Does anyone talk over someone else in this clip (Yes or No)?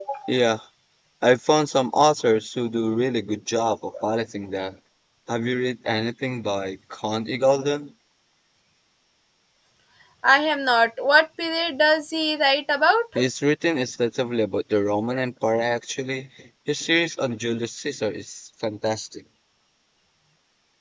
No